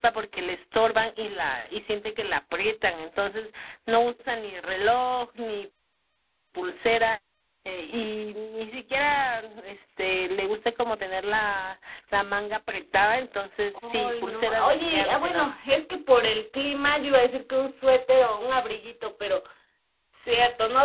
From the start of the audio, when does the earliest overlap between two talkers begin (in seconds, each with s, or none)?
13.8 s